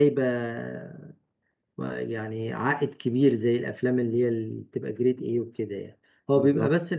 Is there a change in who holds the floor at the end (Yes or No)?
No